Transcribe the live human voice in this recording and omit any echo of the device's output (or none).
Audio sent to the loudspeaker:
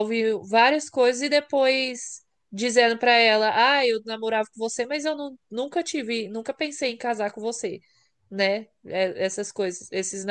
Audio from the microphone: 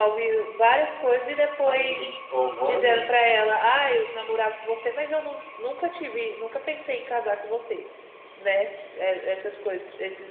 Ai, gente, qual é o nome?